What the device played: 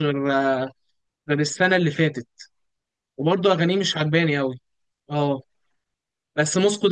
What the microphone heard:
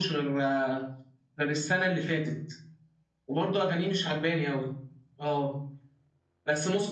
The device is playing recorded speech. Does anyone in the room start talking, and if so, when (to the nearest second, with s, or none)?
none